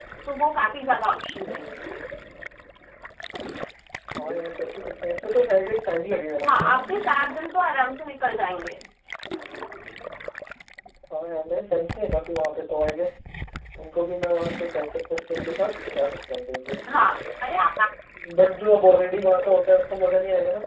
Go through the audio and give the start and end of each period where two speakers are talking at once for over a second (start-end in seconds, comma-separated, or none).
none